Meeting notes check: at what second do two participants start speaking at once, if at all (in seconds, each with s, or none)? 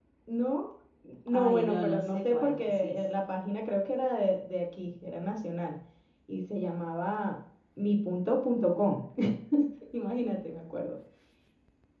1.3 s